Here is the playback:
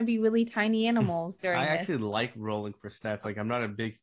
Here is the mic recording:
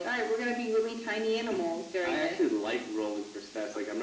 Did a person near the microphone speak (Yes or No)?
No